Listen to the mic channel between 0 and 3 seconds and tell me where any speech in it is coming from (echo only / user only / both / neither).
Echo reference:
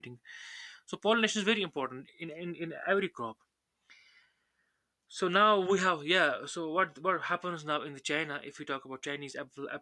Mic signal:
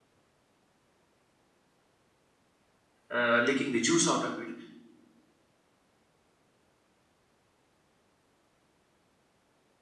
neither